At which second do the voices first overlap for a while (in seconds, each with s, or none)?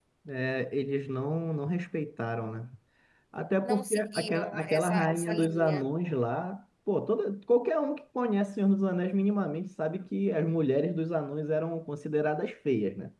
3.6 s